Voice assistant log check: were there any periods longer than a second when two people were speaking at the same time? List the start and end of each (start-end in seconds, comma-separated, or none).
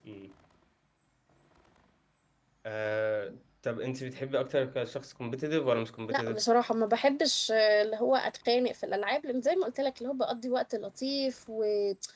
none